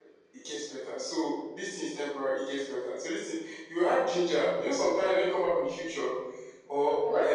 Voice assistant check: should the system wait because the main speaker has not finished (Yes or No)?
Yes